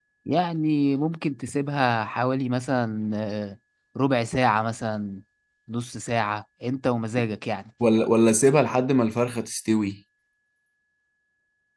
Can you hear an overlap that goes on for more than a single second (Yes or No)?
No